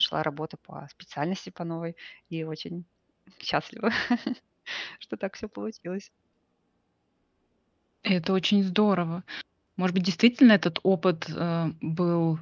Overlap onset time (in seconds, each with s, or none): none